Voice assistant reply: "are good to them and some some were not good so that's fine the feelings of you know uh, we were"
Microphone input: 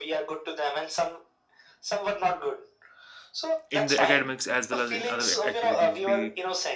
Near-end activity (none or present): present